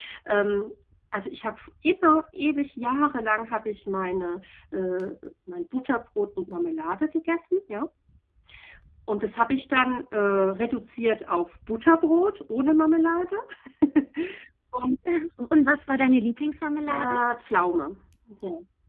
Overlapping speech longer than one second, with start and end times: none

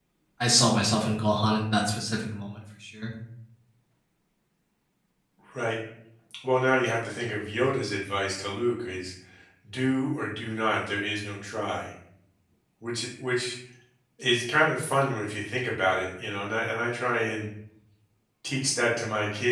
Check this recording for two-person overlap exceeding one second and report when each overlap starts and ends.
none

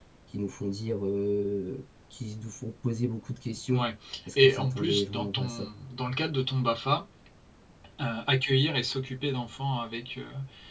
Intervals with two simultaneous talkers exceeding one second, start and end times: 4.4-5.7

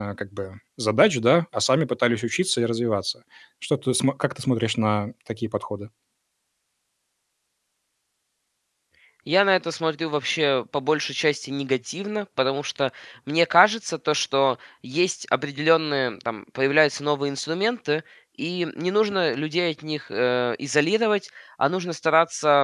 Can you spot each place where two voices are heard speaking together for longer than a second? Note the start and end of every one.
none

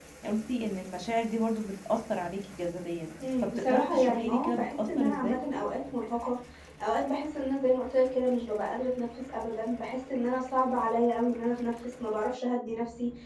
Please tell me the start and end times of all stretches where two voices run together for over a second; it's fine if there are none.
3.4-5.4

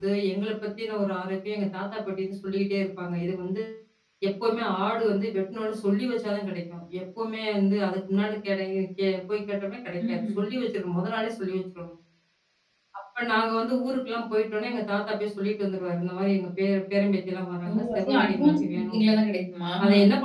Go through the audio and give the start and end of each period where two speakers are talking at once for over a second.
17.7-19.1

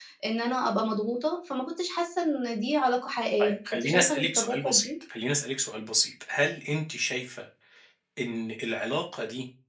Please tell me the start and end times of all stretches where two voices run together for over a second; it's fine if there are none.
3.4-4.9

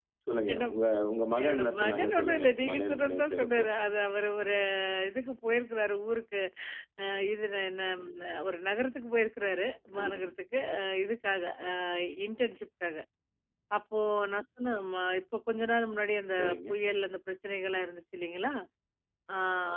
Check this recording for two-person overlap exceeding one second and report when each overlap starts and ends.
1.4-3.6

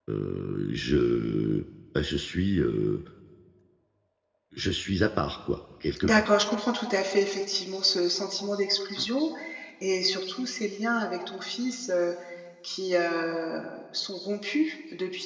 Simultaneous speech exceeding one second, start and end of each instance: none

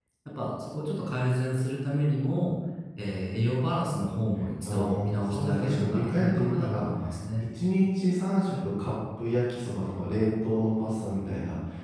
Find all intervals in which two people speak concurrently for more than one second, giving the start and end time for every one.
4.6-6.9

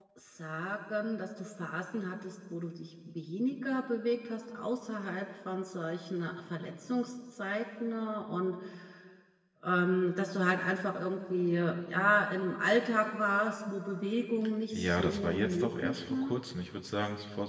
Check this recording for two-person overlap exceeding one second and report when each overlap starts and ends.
14.7-16.3

